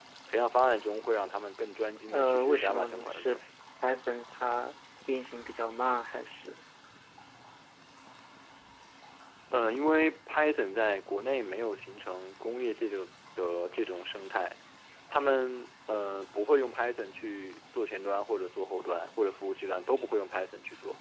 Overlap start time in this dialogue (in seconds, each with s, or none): 2.1 s